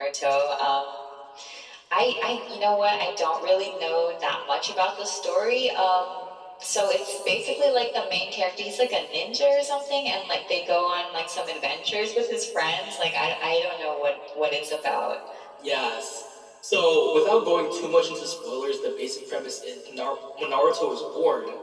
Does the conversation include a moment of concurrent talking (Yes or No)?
No